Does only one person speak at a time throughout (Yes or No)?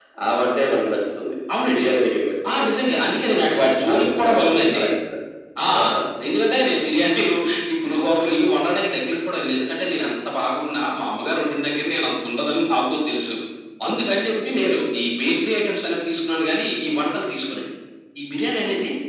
No